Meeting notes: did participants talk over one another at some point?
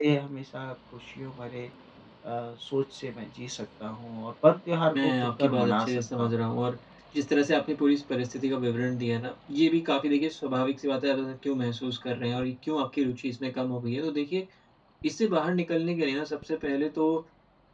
Yes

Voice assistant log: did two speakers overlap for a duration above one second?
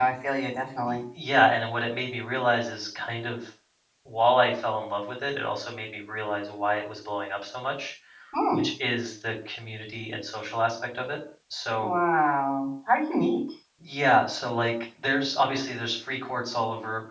No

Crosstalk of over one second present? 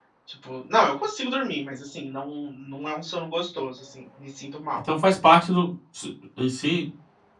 No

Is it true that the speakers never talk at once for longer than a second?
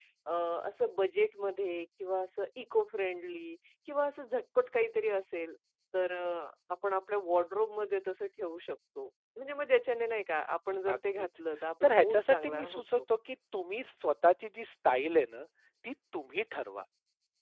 No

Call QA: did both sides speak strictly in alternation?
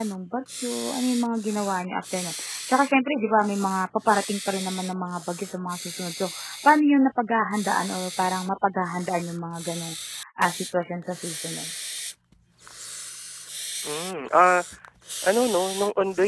Yes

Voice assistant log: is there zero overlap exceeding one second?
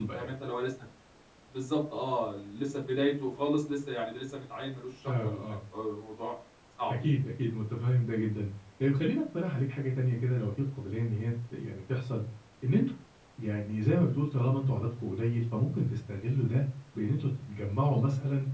Yes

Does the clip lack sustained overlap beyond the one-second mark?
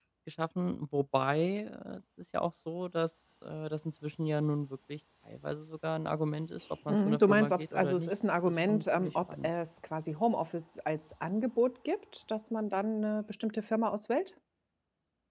No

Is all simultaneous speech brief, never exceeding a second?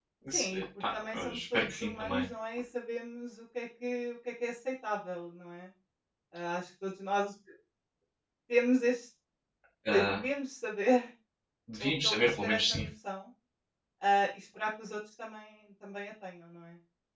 No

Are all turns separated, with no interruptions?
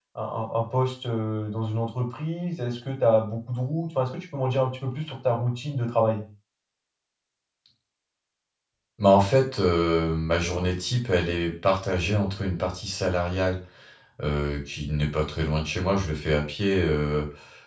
Yes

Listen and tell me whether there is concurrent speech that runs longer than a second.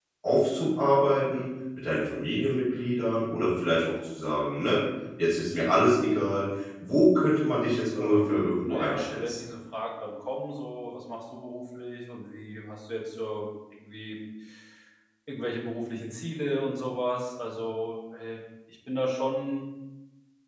Yes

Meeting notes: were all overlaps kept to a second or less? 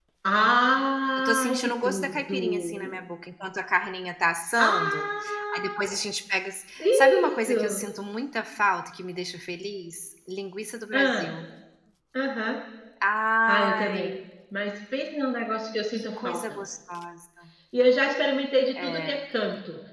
No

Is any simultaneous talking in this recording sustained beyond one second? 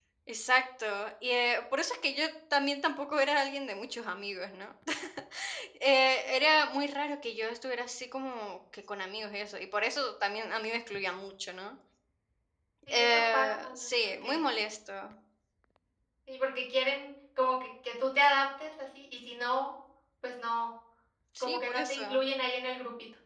Yes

